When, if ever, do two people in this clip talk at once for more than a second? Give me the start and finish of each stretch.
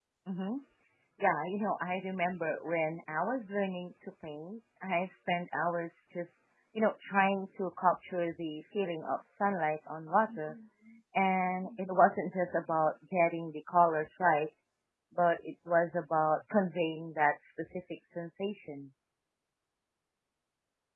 none

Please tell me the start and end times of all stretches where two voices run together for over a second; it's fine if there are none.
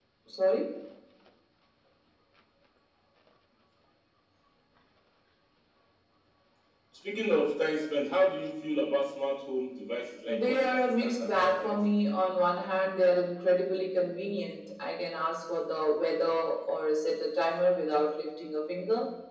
10.3-11.8

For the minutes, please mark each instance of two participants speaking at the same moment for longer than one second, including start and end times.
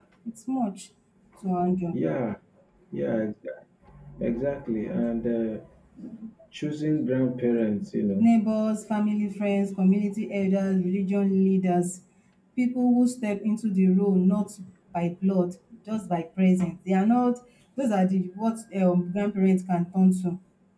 none

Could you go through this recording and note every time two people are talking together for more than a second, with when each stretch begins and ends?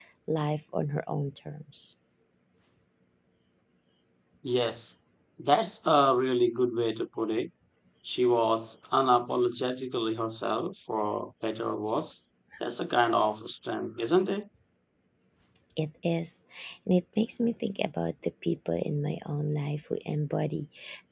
none

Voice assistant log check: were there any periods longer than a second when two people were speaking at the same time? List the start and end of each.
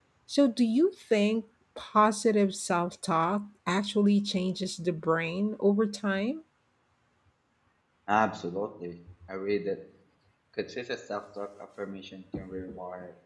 none

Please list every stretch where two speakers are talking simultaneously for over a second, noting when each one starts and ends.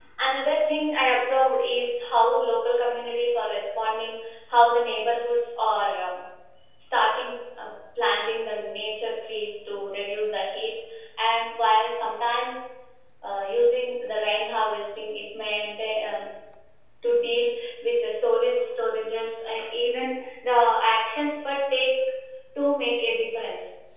none

